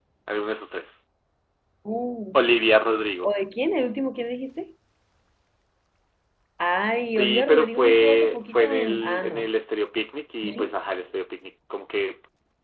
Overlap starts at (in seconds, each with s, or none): 7.2 s